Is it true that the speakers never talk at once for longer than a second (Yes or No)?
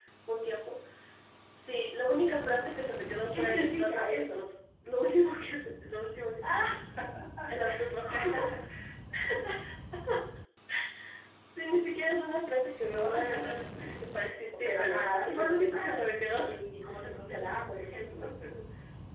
No